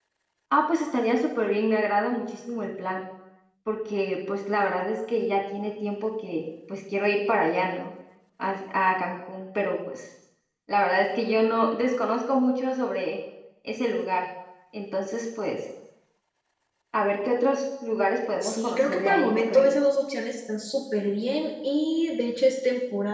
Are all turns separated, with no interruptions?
No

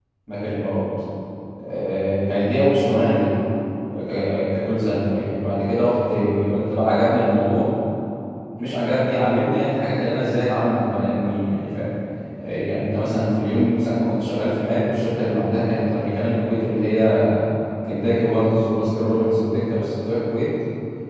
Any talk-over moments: No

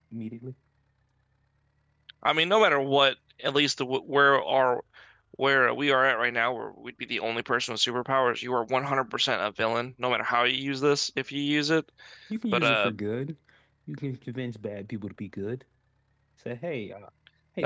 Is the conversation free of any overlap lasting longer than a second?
Yes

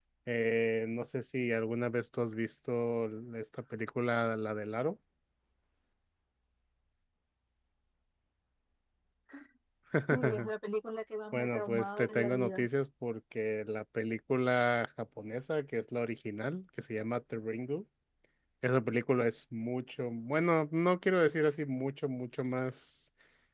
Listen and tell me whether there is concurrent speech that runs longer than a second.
Yes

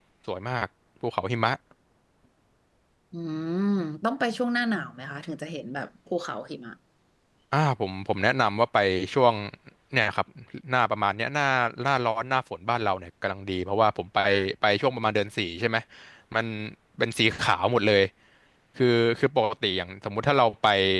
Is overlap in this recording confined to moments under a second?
Yes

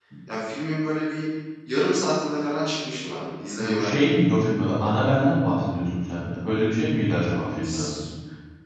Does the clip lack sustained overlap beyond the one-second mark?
Yes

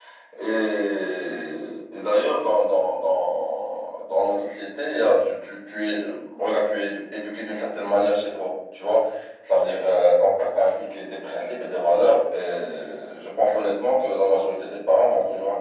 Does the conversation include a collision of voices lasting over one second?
No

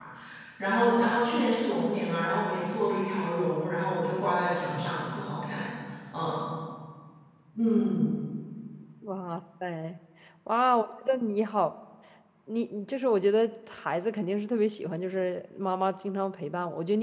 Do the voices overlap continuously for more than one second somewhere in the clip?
No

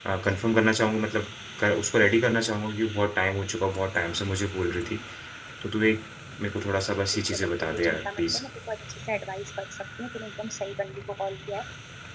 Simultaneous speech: Yes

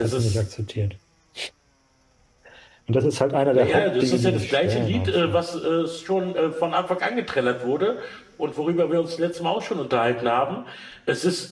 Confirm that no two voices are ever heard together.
No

